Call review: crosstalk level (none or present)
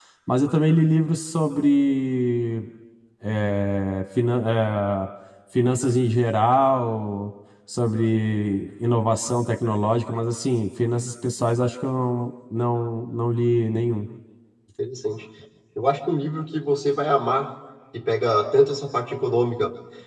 none